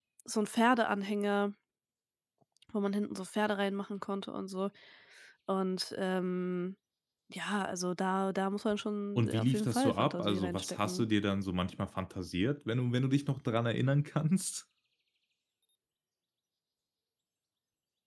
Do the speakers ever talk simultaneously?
Yes, from 9.2 s

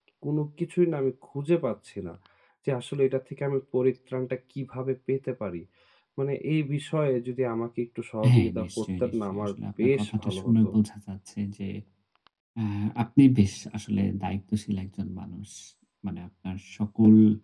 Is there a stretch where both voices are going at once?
Yes, from 8.2 s

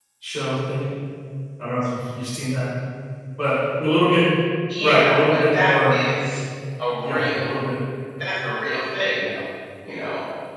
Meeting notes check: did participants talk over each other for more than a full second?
Yes, from 4.8 s

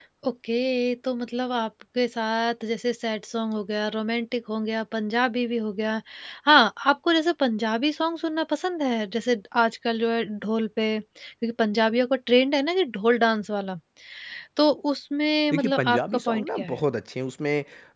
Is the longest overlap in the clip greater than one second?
Yes, from 15.5 s

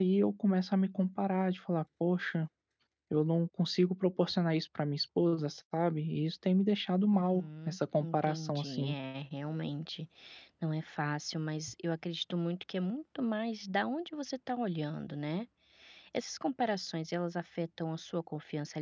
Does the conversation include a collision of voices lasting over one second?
Yes, from 7.1 s

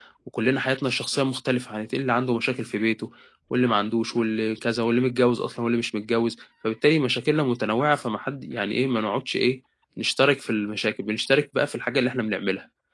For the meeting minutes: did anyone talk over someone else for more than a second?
No

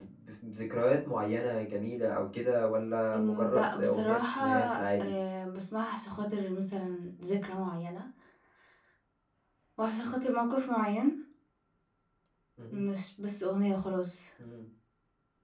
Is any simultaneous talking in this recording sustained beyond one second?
Yes, from 3.1 s

